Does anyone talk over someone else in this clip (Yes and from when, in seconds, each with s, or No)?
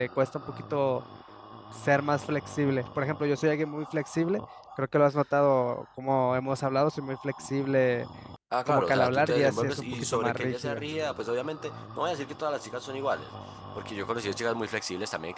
Yes, from 8.7 s